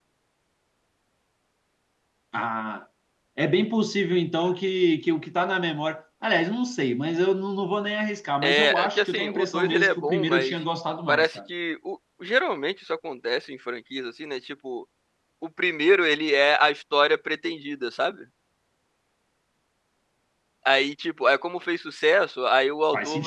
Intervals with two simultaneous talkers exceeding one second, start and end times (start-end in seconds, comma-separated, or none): 8.4-10.6